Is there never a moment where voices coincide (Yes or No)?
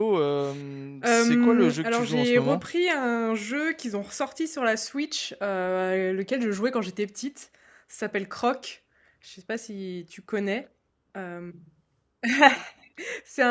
No